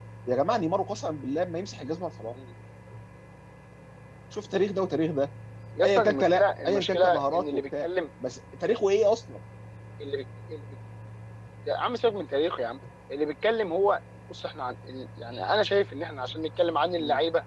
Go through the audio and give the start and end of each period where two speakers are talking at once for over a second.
5.8-7.9

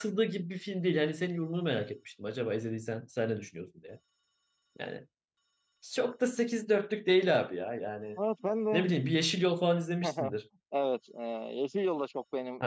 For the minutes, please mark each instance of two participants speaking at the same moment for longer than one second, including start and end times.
none

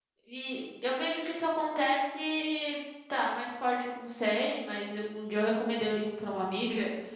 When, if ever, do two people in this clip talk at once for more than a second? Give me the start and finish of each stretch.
none

